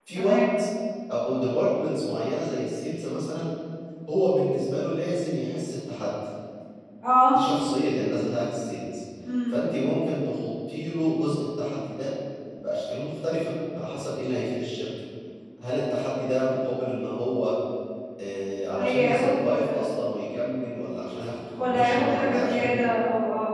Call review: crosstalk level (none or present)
present